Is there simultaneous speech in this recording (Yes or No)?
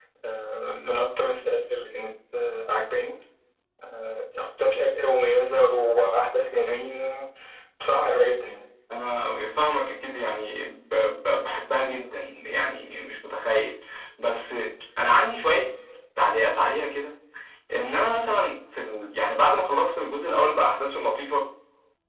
No